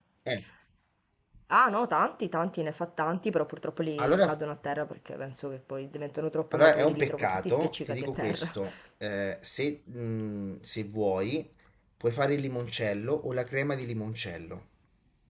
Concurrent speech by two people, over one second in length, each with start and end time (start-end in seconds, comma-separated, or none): 6.5-8.6